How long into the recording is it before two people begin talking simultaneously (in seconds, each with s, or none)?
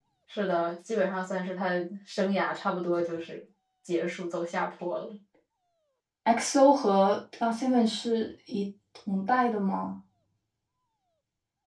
none